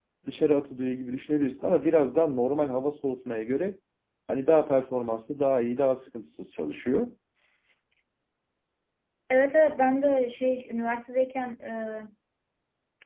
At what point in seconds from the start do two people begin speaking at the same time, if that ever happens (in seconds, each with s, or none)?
none